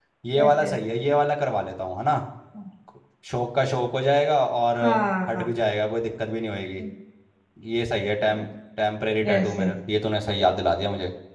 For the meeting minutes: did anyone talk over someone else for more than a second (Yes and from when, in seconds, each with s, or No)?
No